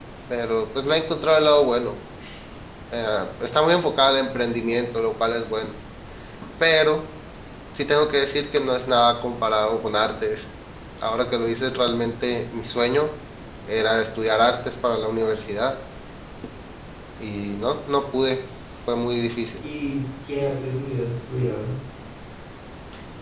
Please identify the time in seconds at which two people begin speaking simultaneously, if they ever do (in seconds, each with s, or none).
none